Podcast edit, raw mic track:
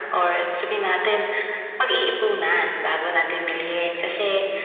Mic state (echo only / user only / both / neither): echo only